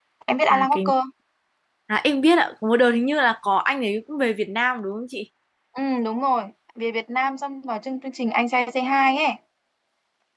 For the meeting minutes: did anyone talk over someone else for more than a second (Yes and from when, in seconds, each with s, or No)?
No